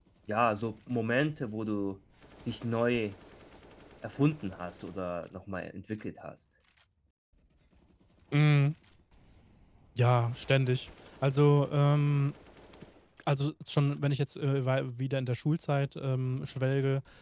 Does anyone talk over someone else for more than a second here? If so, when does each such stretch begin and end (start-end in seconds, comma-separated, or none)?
none